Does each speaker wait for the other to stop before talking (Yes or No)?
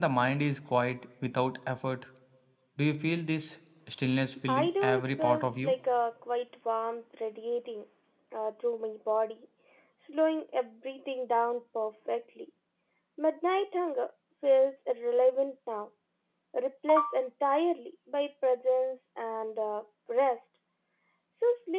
No